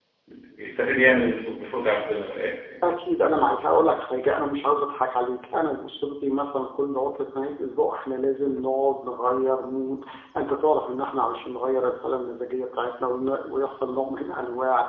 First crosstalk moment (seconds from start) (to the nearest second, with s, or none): none